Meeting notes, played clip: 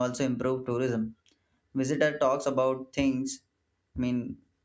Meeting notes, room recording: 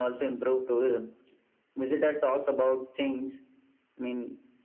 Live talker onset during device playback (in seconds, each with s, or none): none